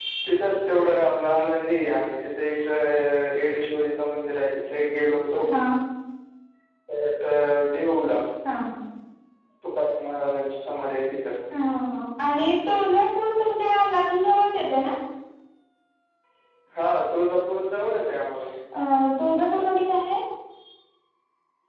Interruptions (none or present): none